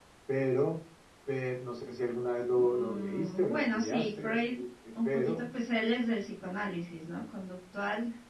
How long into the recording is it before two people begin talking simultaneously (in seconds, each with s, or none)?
2.5 s